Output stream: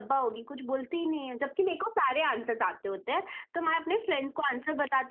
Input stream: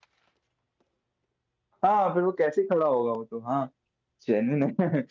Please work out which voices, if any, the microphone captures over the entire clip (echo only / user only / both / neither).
user only